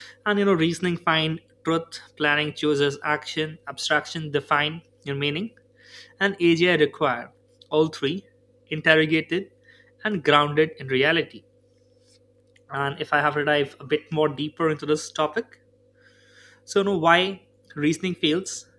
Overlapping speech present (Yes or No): No